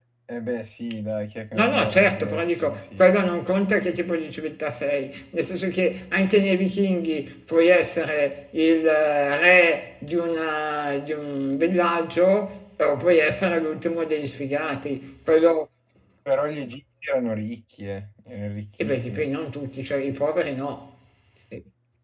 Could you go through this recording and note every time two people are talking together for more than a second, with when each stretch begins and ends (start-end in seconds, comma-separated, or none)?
1.5-3.0